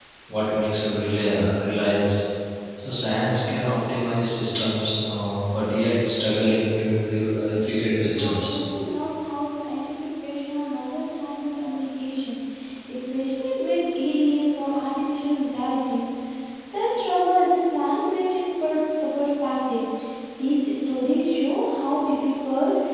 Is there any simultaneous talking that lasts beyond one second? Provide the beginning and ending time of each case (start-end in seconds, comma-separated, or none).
none